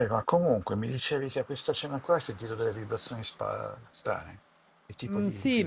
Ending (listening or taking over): taking over